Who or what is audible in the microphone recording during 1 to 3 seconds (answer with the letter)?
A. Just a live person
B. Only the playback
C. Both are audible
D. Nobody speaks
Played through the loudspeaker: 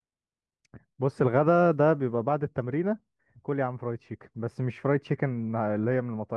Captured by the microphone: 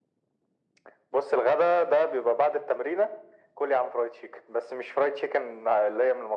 B